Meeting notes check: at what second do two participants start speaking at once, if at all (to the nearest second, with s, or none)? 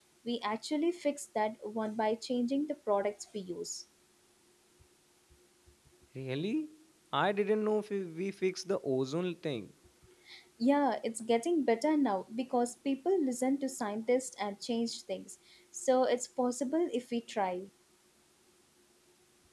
none